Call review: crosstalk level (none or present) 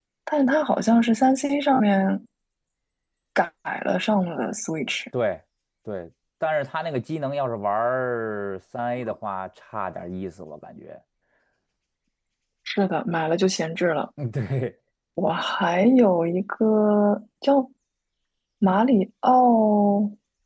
none